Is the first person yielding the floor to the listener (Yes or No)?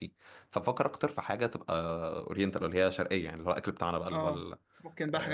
Yes